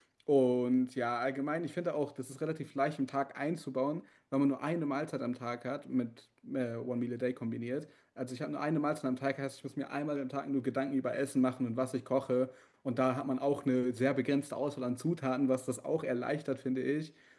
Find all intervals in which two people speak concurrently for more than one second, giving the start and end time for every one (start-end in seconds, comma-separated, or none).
none